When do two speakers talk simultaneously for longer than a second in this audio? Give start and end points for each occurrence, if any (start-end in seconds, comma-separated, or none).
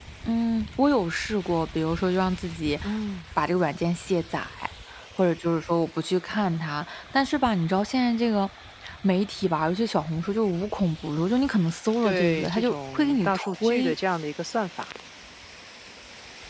12.0-13.9